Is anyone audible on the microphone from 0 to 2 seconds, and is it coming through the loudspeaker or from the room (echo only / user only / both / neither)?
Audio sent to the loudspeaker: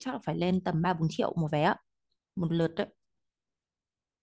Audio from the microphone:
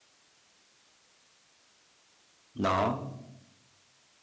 neither